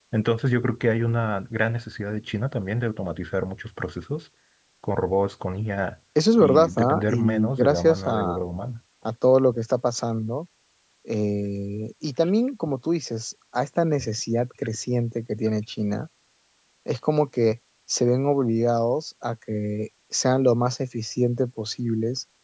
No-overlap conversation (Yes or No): No